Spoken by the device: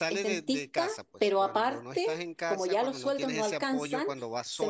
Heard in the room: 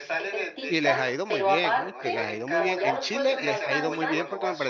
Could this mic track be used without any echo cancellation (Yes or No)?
No